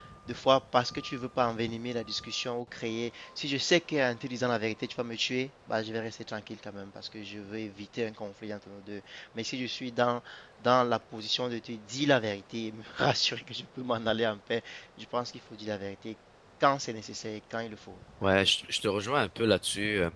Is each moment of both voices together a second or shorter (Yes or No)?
Yes